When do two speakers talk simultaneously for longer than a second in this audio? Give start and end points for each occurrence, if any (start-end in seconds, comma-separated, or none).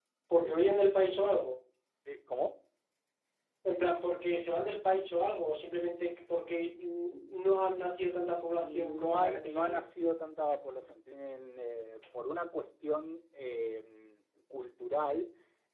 8.5-9.9